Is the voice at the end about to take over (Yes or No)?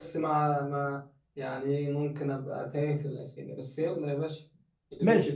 Yes